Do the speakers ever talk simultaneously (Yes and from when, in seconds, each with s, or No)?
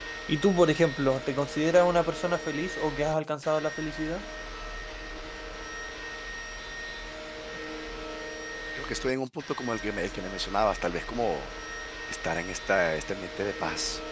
No